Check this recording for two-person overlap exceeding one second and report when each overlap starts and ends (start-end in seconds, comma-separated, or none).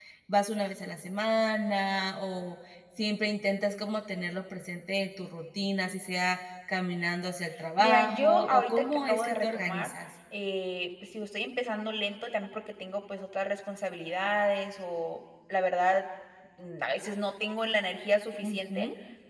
7.8-9.9